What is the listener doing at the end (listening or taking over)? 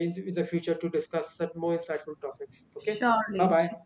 taking over